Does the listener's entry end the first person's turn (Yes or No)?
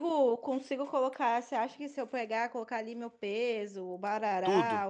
No